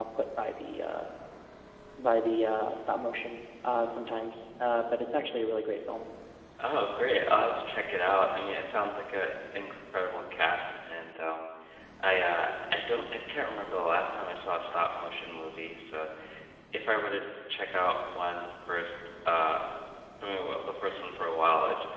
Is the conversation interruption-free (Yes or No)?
Yes